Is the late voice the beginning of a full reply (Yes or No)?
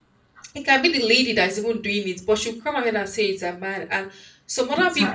No